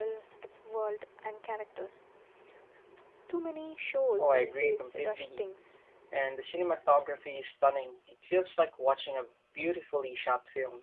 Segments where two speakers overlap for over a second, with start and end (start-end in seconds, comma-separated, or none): 4.2-5.4